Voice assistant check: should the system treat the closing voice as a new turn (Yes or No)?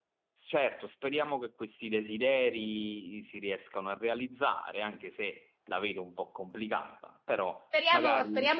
Yes